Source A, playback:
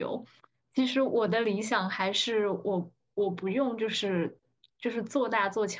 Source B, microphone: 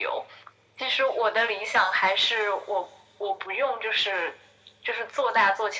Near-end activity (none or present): none